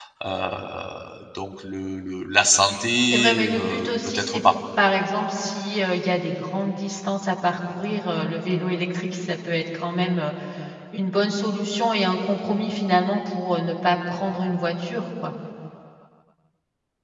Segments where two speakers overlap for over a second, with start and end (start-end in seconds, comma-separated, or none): 3.0-4.4